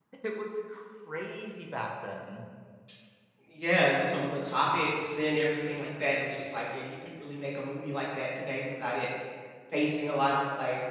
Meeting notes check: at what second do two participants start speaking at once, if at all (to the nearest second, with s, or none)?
none